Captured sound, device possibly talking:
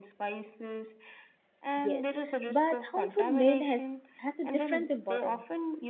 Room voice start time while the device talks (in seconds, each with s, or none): 1.8 s